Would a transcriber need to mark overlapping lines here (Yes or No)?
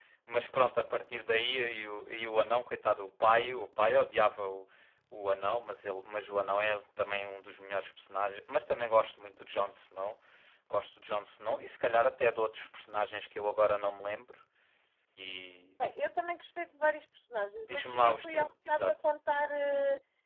Yes